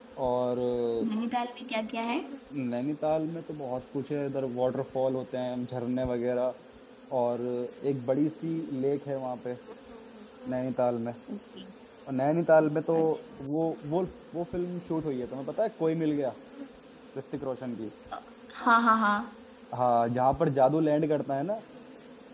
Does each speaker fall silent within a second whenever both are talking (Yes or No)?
Yes